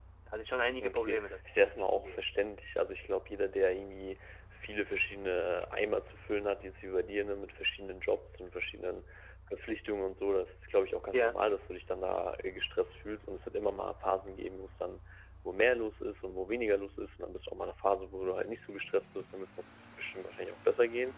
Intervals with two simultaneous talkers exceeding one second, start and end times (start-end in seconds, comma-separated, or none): 0.8-2.2